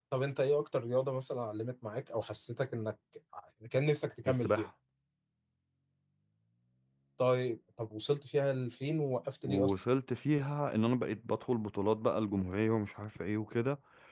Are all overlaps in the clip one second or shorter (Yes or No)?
Yes